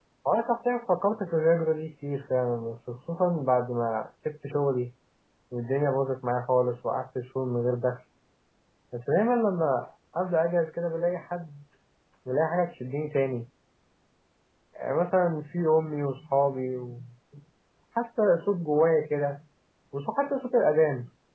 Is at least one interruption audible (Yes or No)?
No